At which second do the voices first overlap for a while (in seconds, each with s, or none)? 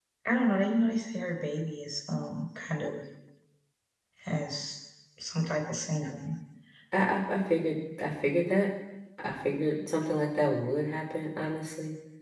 none